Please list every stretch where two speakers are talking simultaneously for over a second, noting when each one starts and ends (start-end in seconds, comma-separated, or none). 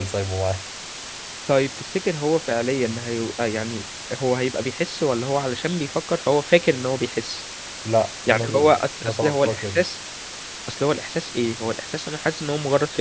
8.3-9.8